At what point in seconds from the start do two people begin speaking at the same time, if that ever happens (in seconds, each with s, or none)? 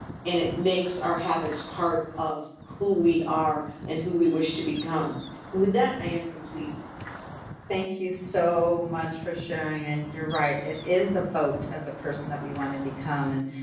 none